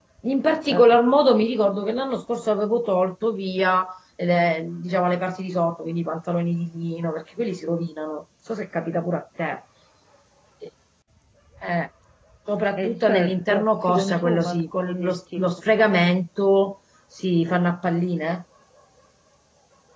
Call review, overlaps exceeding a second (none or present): present